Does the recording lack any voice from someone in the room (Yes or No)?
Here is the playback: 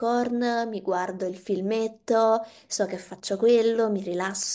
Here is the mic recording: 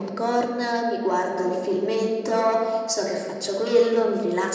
Yes